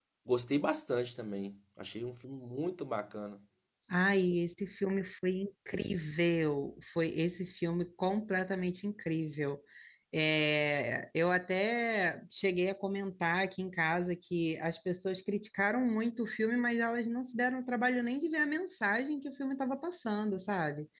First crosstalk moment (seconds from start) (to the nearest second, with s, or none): none